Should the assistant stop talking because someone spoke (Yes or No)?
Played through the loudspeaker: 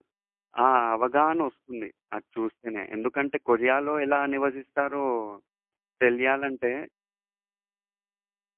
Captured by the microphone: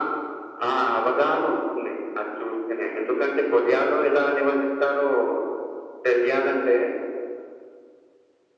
No